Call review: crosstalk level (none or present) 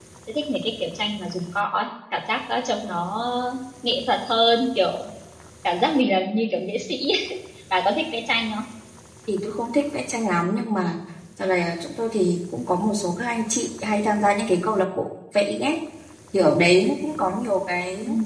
none